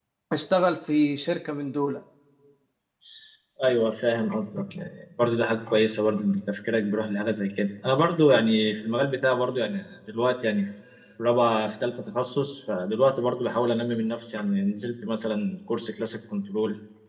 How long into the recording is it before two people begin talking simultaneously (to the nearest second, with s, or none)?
none